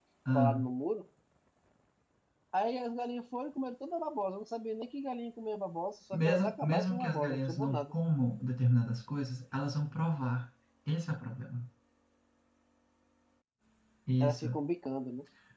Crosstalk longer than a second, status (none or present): present